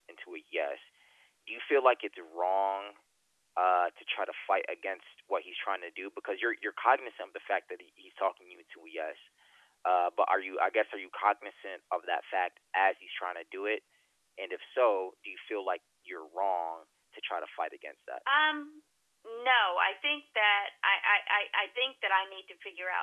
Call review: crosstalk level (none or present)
none